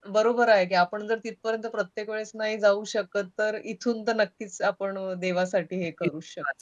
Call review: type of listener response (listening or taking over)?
taking over